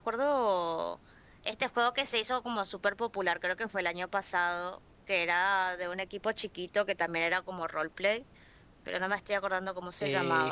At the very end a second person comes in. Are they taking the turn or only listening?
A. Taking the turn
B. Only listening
A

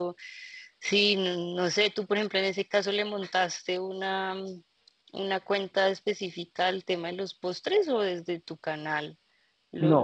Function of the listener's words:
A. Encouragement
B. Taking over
B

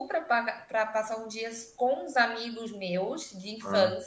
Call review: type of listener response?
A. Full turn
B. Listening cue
B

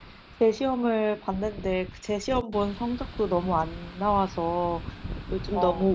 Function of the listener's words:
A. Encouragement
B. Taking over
A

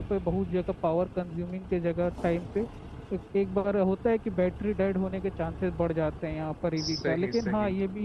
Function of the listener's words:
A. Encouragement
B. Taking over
A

